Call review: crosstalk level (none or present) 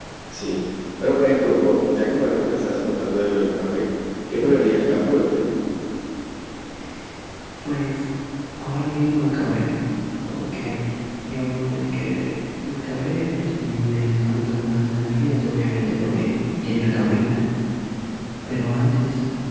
none